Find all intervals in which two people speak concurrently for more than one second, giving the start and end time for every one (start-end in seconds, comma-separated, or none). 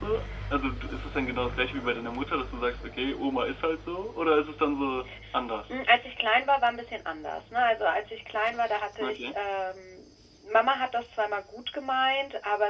none